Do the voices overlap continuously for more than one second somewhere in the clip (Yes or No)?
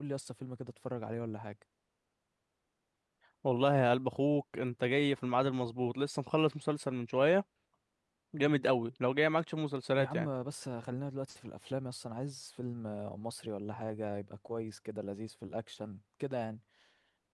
No